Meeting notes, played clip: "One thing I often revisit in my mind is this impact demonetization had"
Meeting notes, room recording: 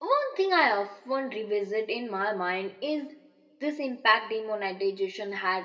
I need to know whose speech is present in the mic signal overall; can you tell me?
echo only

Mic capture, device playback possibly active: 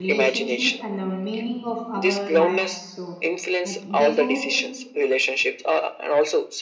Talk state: both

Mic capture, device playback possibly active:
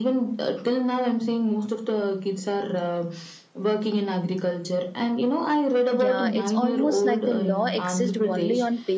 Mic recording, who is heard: both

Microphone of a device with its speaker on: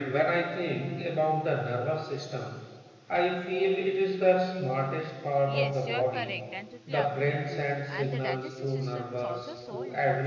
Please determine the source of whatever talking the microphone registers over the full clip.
both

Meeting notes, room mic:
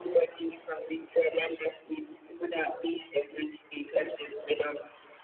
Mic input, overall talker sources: echo only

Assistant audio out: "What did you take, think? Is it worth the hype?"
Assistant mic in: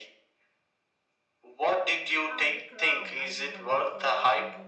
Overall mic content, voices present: both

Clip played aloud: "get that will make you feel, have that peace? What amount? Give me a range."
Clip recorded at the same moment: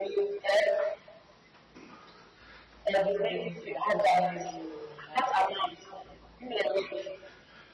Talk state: both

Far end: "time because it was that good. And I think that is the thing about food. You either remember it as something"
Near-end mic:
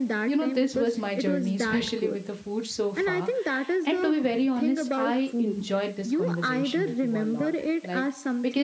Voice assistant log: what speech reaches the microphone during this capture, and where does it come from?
both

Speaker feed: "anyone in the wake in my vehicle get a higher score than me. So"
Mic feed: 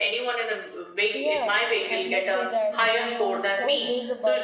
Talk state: both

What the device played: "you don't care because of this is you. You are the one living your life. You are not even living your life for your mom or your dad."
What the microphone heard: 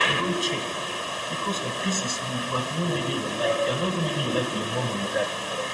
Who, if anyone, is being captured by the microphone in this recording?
echo only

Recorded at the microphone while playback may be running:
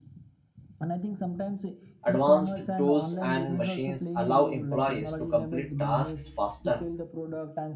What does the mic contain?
both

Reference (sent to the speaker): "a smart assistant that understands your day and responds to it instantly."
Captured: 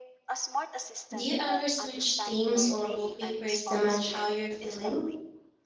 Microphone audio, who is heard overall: both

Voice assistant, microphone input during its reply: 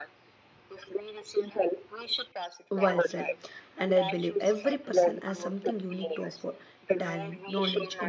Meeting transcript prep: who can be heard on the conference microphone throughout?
both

